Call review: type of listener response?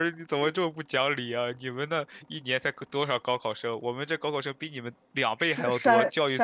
taking over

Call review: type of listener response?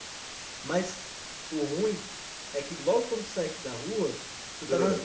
listening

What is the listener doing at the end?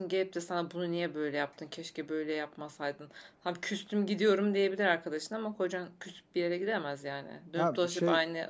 taking over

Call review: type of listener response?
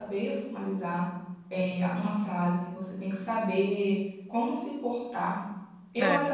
listening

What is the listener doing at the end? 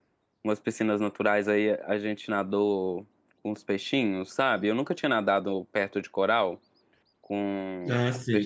taking over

